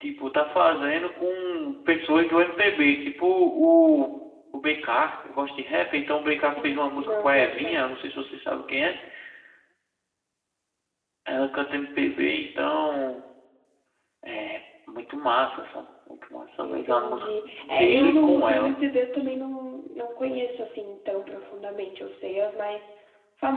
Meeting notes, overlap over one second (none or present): present